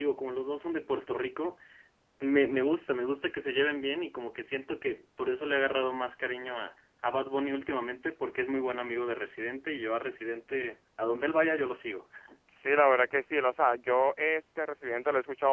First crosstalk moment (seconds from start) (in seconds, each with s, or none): none